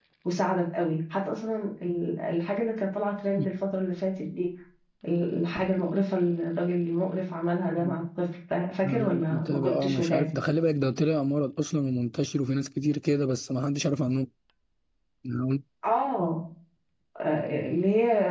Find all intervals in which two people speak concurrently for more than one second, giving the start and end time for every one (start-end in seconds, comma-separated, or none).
8.8-10.3